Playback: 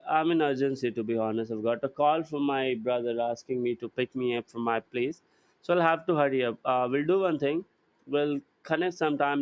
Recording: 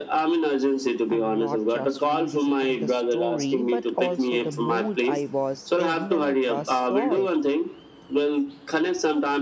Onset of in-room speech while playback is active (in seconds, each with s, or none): 1.1 s